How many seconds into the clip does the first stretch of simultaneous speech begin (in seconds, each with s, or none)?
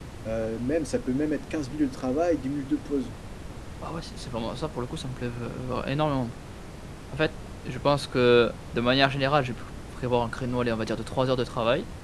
none